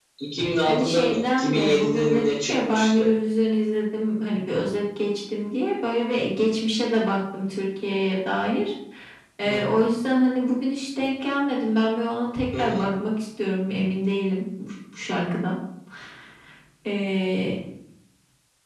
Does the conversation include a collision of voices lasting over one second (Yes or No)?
Yes